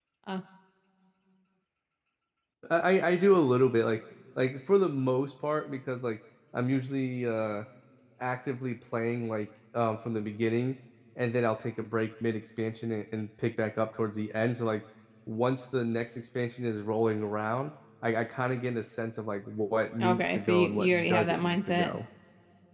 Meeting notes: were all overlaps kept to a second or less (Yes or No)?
No